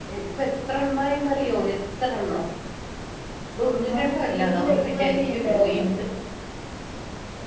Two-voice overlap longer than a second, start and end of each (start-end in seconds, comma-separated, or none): 3.6-5.8